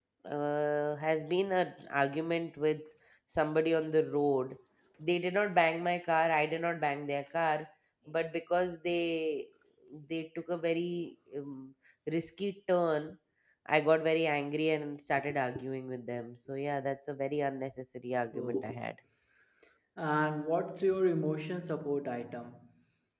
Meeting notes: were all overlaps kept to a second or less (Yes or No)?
Yes